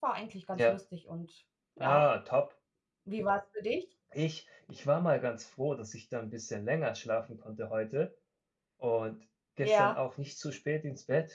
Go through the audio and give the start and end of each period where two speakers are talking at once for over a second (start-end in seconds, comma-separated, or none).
none